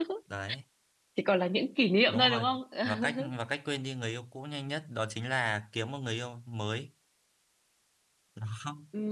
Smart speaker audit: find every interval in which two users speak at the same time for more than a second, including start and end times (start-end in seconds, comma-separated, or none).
none